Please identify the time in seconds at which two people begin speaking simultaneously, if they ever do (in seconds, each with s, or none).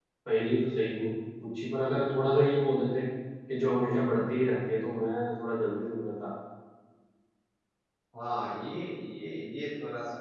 none